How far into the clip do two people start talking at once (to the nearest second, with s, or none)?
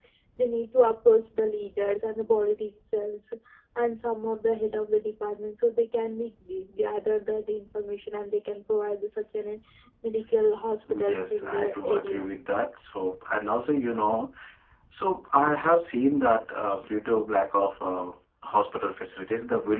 11 s